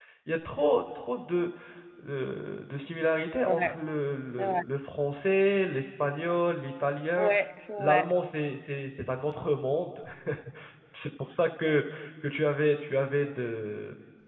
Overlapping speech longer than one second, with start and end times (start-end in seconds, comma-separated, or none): none